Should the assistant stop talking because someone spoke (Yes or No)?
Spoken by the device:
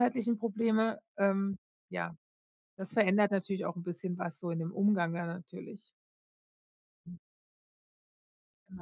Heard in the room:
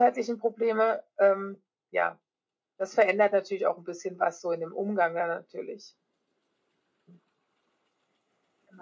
No